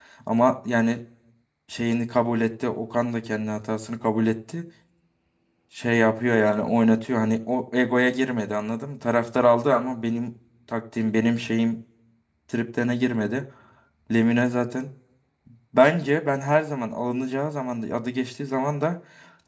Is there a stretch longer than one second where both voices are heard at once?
No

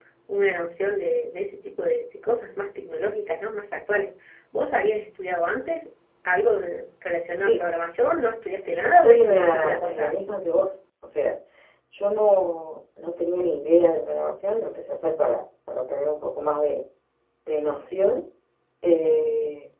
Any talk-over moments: Yes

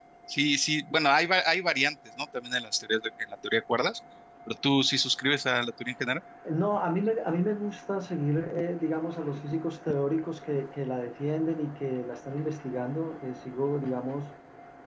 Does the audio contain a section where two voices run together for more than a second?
No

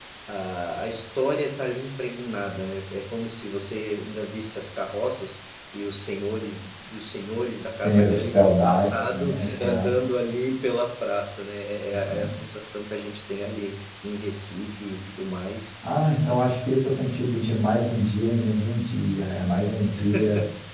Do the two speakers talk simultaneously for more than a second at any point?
Yes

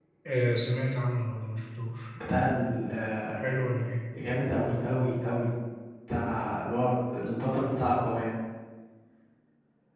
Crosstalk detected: No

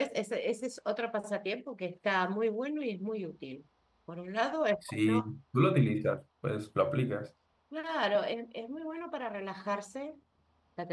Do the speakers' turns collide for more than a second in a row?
No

